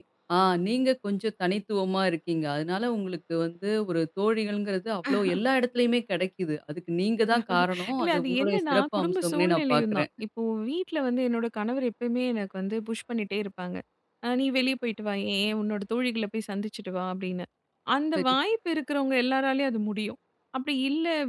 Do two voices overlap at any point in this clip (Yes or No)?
Yes